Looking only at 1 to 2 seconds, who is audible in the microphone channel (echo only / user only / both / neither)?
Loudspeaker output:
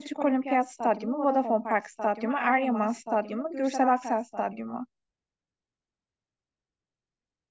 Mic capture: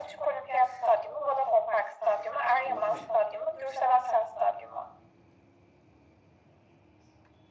echo only